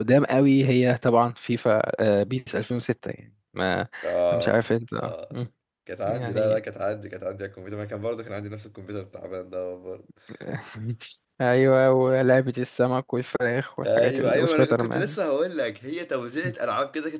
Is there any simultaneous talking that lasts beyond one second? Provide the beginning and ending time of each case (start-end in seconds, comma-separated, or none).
13.8-15.2